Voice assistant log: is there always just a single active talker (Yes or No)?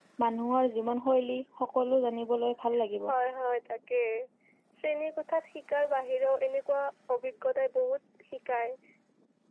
Yes